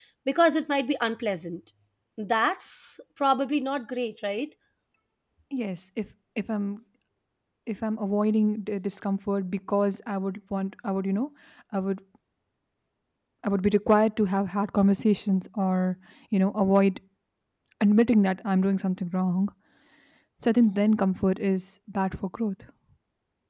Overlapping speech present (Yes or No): No